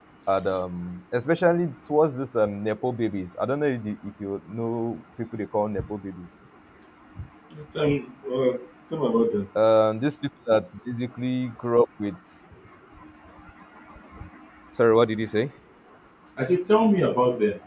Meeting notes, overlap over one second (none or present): none